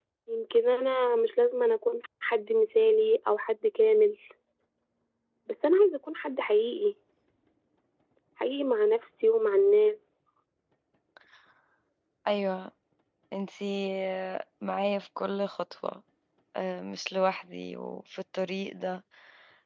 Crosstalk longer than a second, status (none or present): none